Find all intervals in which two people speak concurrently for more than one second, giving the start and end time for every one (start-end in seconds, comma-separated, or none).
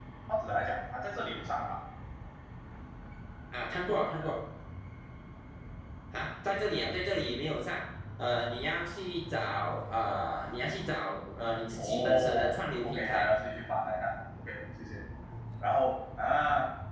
11.7-13.3